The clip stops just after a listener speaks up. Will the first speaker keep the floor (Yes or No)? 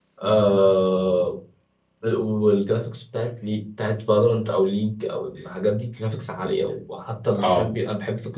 Yes